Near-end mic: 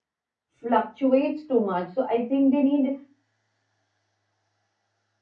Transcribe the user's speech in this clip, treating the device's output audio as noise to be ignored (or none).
fluctuates too much so i think they need